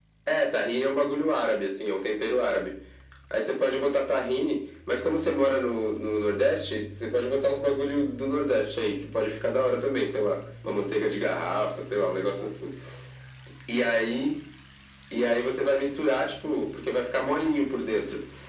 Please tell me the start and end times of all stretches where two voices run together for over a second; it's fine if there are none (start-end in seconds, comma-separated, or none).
none